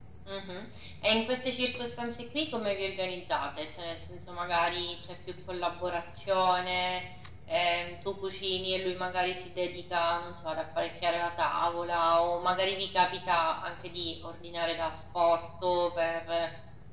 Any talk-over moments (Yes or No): No